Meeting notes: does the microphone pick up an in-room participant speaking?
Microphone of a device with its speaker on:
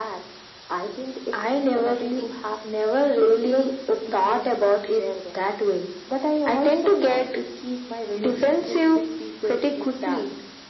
No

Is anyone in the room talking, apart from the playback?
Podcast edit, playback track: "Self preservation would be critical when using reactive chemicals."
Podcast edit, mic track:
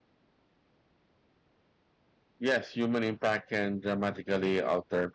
Yes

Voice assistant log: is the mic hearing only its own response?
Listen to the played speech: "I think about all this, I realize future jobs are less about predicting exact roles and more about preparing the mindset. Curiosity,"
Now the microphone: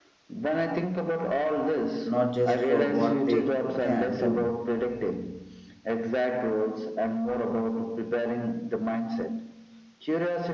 No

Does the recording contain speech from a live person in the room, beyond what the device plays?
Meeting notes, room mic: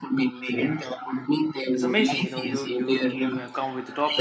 Yes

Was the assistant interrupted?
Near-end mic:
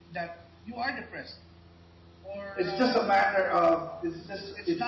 Yes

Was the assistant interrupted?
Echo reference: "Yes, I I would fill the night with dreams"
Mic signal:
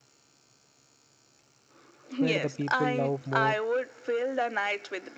Yes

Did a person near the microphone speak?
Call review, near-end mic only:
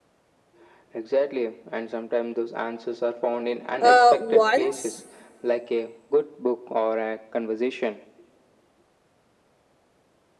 Yes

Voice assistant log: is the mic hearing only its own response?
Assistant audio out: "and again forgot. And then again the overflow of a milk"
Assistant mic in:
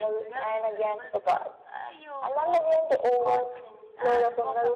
No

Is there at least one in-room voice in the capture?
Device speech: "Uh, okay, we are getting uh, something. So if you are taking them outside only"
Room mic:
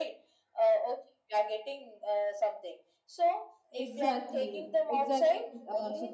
Yes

